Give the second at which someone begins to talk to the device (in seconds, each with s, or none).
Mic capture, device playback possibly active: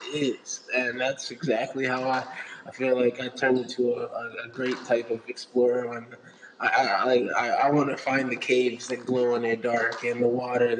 none